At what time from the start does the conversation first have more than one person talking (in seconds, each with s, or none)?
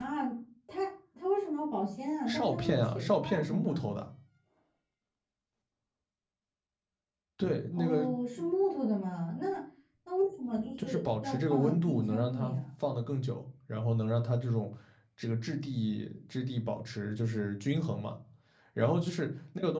2.3 s